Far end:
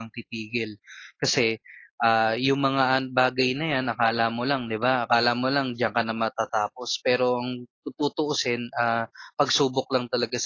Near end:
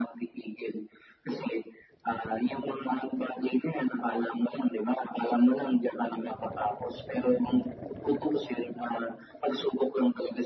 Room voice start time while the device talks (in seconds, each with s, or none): none